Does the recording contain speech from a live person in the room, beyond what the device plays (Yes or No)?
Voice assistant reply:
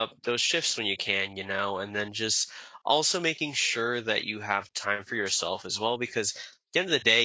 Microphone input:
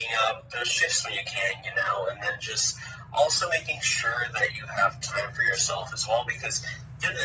No